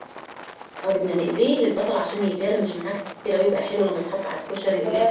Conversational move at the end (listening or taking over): taking over